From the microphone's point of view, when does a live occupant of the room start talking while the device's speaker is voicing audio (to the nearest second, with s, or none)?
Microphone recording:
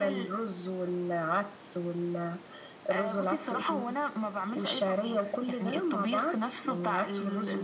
none